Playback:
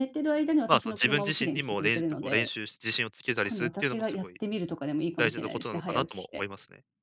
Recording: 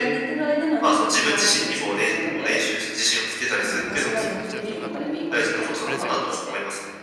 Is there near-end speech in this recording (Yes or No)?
Yes